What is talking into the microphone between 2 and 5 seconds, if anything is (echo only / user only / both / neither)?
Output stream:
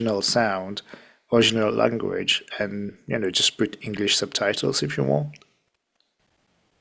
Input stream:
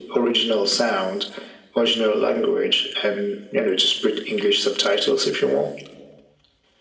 echo only